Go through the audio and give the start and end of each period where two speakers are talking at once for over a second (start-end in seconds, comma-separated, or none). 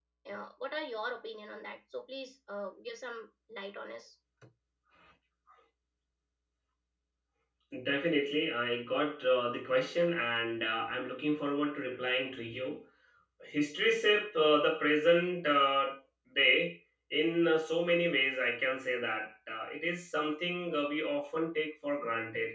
none